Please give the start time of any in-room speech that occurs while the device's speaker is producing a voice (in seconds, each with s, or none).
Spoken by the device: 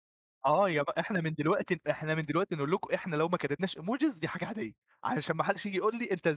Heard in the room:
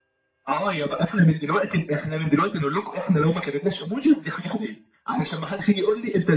none